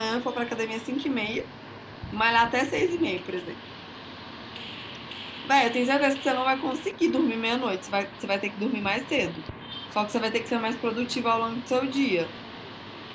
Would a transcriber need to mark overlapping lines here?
No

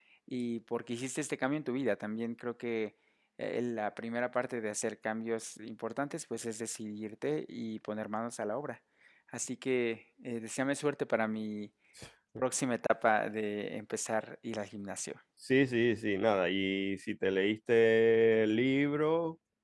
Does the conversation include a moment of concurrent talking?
No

